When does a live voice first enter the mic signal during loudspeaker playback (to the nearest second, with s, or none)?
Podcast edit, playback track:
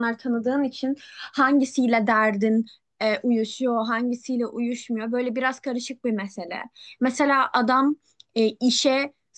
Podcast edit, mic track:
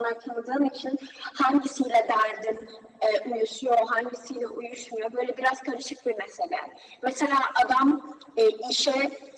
none